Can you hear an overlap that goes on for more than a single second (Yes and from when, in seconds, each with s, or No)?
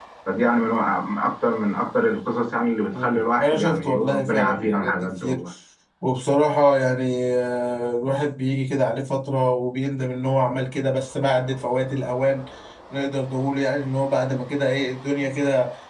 Yes, from 2.9 s